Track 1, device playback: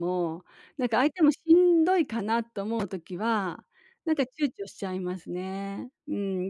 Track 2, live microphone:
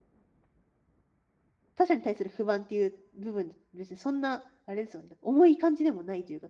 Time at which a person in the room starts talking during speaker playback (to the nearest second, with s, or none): 2 s